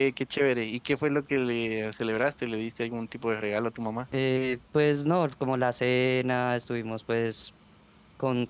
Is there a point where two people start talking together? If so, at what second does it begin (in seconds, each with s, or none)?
none